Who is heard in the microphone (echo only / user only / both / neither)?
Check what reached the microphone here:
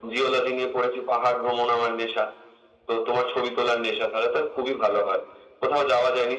echo only